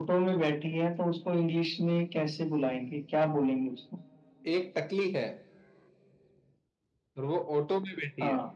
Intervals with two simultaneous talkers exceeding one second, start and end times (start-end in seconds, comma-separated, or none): none